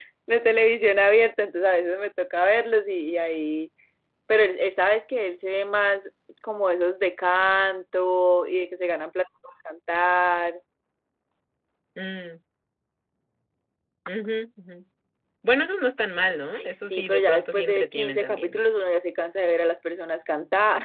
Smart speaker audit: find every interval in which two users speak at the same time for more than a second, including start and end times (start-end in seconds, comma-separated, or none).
16.5-18.6